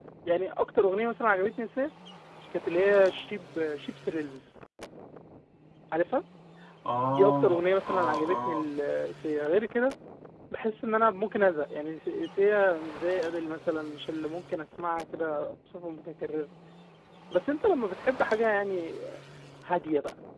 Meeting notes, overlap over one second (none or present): present